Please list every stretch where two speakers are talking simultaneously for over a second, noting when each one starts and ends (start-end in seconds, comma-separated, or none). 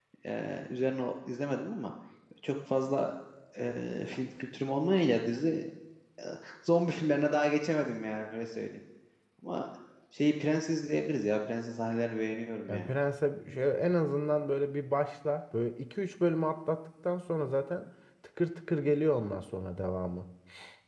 none